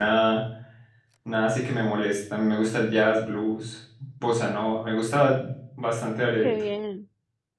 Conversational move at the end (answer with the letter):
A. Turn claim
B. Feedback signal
A